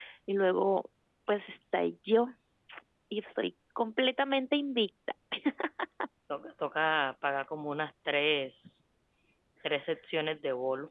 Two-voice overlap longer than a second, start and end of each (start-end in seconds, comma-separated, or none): none